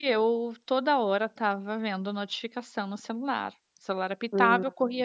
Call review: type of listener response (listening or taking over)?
listening